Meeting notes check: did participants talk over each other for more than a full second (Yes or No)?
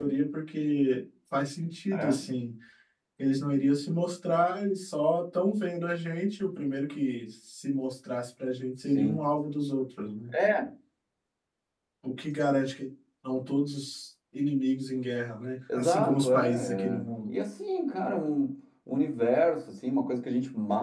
Yes